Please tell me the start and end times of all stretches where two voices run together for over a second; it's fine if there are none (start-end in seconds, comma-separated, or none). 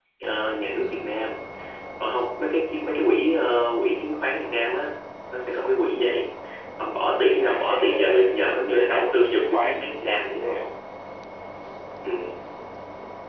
7.4-10.7